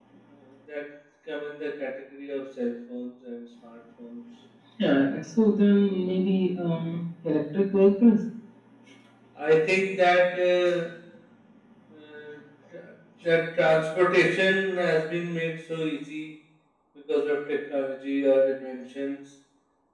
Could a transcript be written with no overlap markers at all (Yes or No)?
Yes